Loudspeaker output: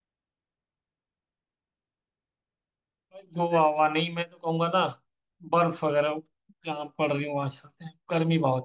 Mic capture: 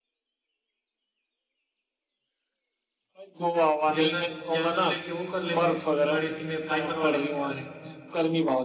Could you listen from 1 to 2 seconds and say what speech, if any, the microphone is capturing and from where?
neither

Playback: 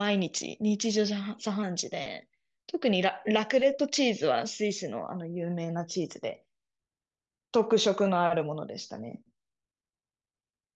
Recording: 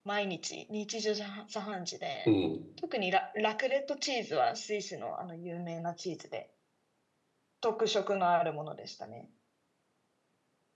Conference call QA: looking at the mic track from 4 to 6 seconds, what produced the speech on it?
echo only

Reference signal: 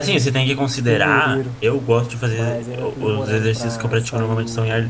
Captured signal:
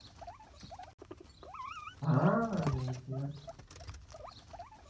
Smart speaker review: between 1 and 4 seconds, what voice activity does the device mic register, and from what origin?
user only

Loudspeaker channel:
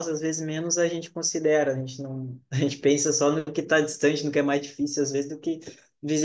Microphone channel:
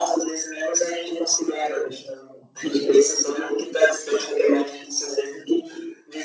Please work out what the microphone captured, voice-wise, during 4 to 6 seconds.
echo only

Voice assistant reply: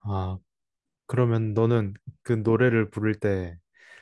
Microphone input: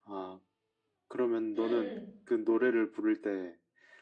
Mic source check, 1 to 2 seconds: both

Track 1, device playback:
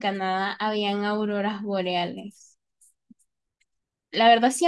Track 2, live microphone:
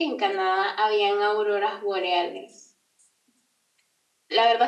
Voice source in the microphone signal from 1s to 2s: echo only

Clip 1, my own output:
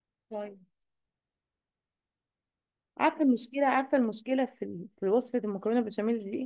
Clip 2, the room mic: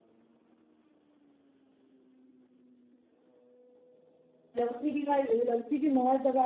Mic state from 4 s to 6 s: user only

